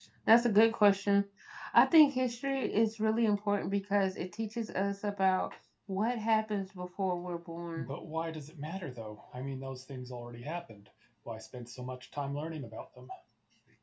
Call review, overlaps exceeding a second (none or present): none